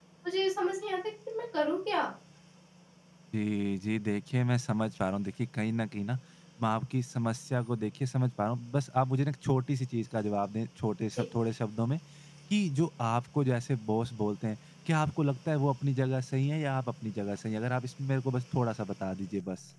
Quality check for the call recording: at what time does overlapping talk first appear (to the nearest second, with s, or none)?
none